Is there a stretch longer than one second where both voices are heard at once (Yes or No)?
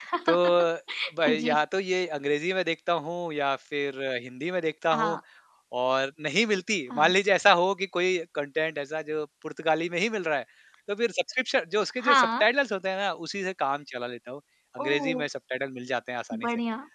No